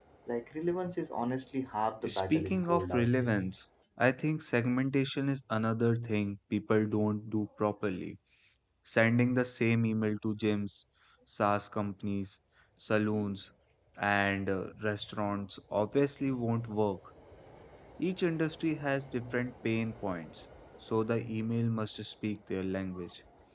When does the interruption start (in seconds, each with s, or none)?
2.0 s